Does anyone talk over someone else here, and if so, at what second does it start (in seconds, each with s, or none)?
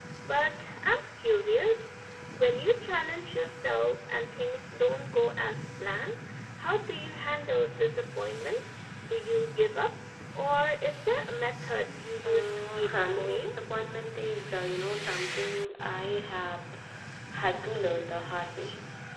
12.2 s